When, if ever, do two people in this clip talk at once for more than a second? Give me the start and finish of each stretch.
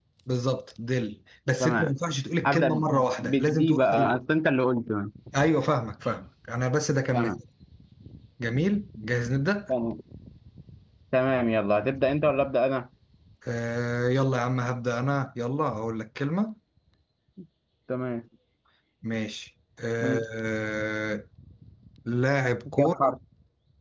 2.4-4.1

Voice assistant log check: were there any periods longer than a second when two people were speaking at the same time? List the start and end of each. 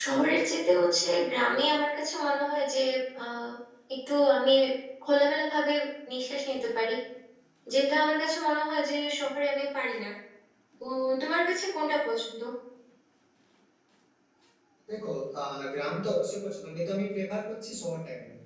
none

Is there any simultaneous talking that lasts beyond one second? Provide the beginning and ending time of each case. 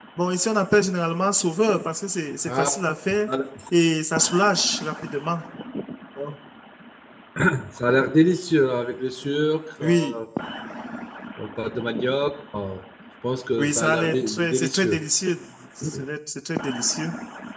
13.6-15.0

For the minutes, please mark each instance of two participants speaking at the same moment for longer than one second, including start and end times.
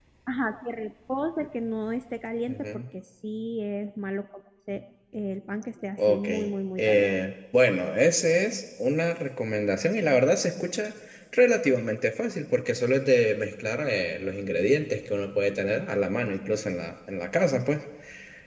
none

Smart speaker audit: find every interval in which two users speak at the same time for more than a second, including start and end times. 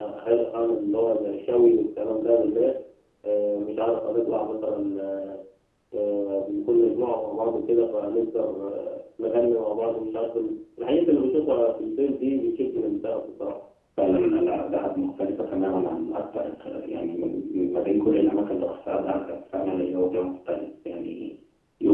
none

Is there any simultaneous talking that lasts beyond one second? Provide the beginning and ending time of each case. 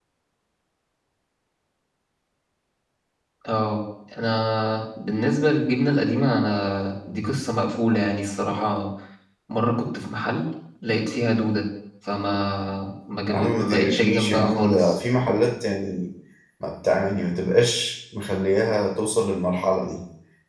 13.3-14.9

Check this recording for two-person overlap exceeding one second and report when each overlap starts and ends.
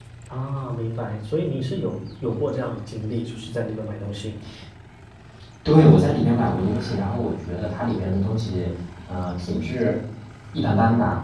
none

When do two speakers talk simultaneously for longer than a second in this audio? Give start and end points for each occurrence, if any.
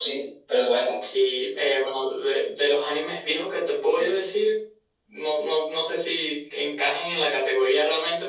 none

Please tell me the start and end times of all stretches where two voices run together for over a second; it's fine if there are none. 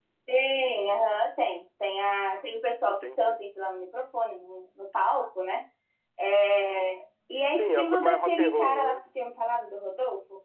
7.5-9.0

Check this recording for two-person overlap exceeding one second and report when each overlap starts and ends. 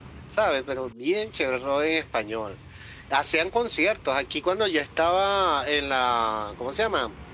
none

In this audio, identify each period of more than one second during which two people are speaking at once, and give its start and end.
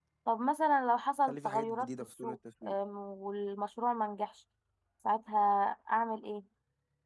1.2-2.7

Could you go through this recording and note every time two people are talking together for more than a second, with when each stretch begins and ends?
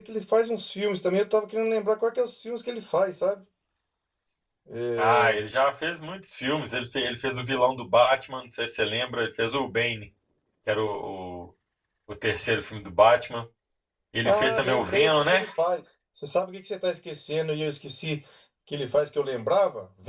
14.2-15.4

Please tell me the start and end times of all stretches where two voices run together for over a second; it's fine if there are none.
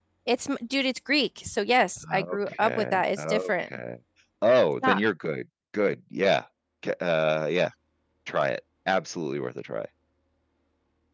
2.1-3.7

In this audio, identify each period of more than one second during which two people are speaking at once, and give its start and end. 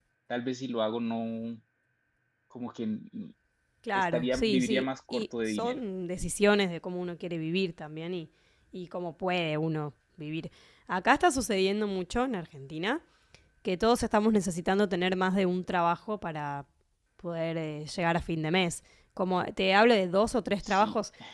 3.9-5.8

